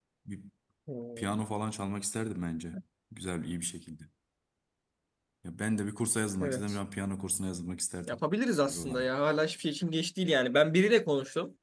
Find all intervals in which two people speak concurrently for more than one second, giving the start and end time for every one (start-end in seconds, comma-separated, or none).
none